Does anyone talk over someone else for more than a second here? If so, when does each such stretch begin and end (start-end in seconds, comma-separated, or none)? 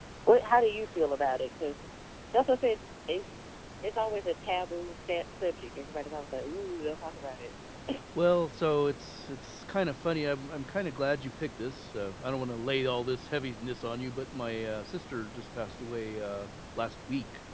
none